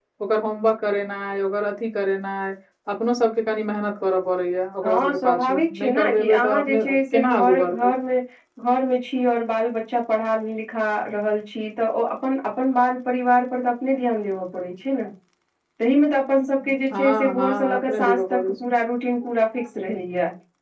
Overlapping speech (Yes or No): Yes